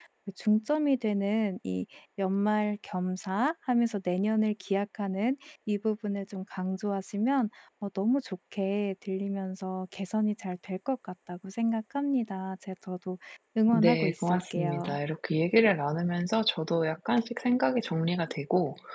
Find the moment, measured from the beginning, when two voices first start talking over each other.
13.7 s

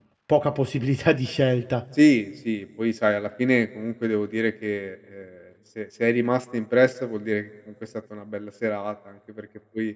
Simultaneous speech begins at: none

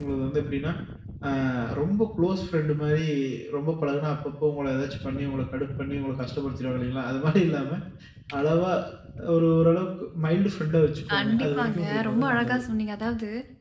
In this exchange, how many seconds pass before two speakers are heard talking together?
11.1 s

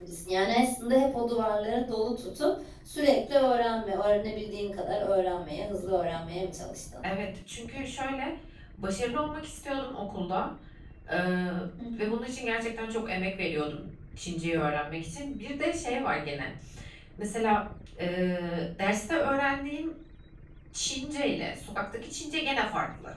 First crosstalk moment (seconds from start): none

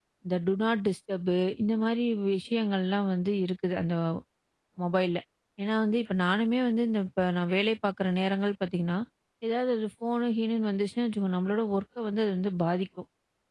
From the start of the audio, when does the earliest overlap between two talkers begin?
none

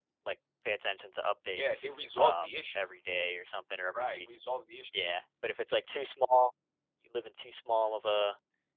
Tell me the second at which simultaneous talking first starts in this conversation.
1.5 s

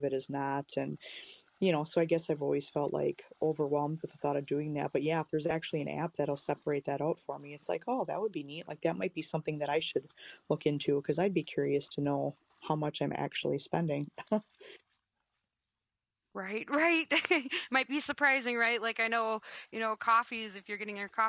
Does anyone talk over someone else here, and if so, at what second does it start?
none

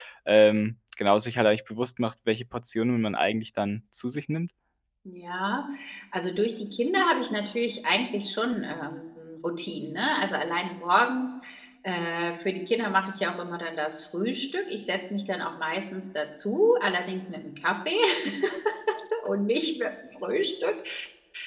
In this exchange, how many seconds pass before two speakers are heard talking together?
none

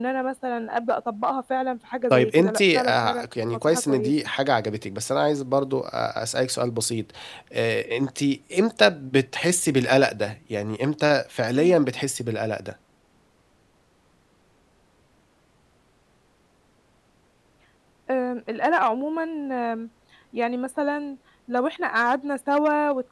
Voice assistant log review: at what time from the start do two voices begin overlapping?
2.1 s

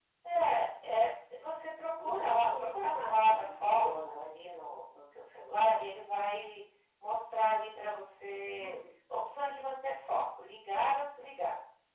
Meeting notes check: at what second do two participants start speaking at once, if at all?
2.0 s

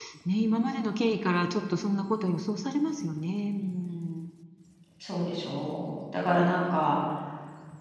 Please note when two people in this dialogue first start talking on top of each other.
none

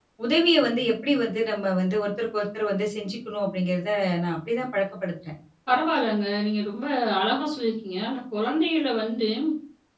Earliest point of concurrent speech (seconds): none

